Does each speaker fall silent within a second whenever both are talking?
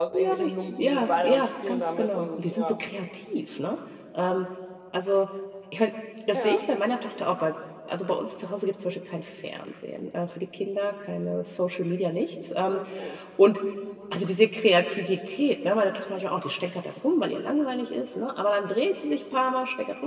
No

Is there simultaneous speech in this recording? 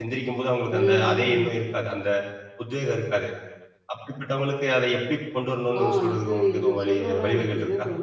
Yes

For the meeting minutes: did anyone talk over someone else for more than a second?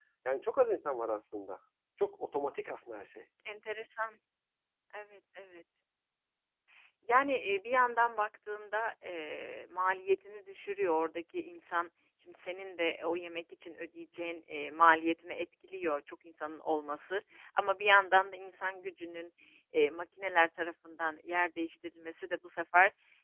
No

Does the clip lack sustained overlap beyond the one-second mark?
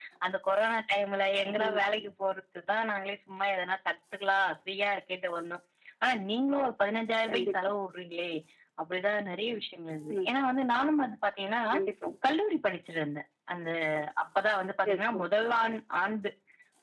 Yes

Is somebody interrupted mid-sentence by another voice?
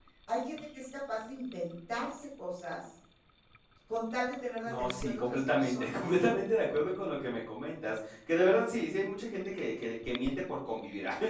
Yes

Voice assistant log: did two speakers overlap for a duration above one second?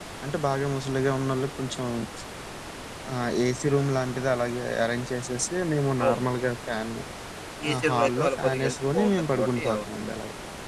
Yes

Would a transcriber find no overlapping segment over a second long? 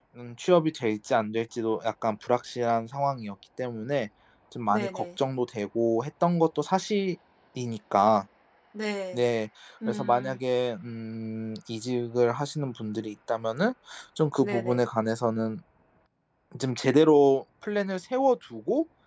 Yes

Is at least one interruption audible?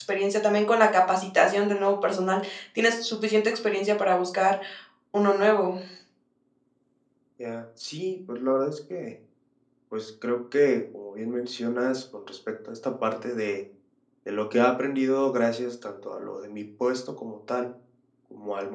No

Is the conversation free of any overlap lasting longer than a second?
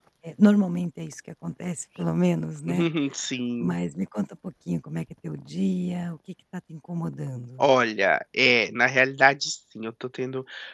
Yes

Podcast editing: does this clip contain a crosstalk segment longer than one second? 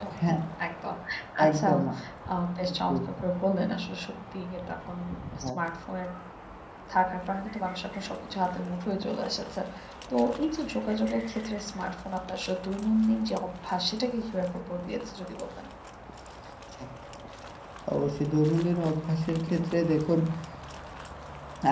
No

